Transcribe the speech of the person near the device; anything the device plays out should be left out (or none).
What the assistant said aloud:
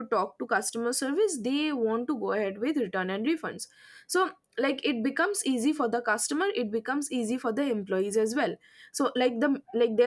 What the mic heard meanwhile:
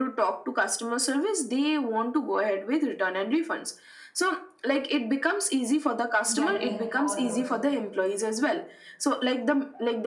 getting all those